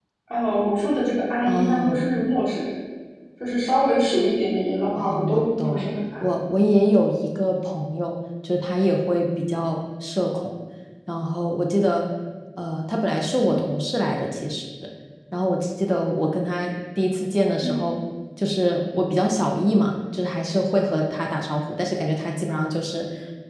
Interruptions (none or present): present